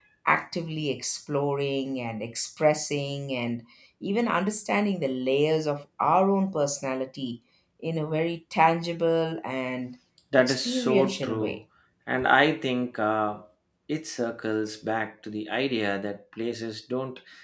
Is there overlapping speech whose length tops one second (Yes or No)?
Yes